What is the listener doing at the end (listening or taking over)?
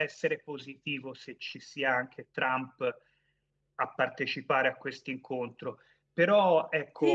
taking over